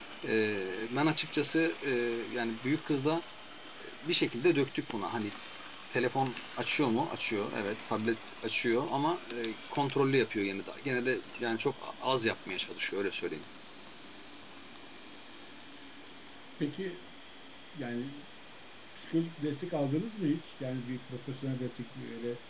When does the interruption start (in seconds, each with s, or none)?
none